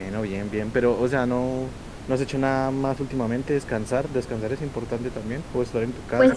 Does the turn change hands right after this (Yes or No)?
Yes